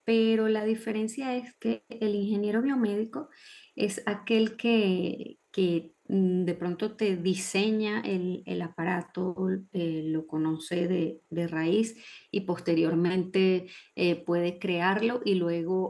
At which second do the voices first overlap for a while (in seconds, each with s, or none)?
none